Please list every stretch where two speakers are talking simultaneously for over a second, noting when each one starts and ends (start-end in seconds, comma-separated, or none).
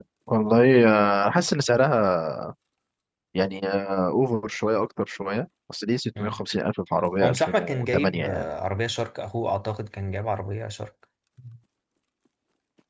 7.2-8.4